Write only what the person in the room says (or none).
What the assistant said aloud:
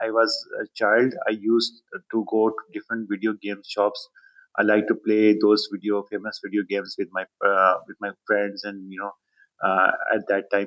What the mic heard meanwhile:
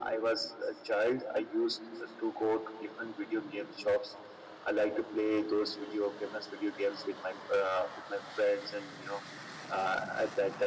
none